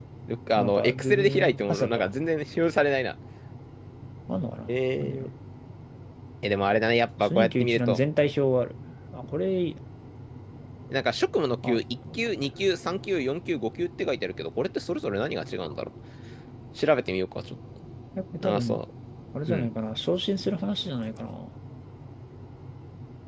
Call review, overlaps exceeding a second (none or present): present